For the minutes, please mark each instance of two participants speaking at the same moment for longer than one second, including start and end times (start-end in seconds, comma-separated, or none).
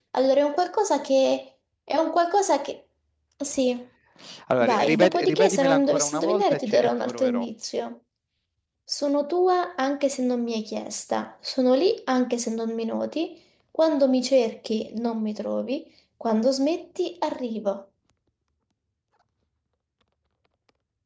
4.6-7.5